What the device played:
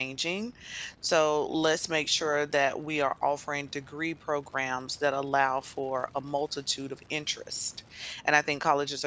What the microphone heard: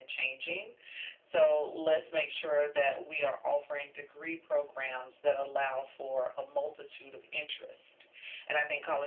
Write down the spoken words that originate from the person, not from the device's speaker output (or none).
none